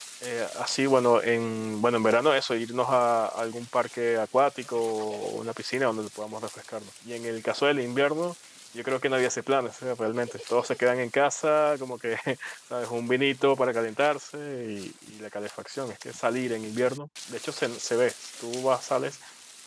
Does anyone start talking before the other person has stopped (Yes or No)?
No